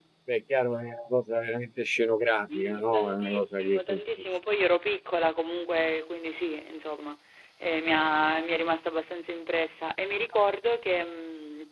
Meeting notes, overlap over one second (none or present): present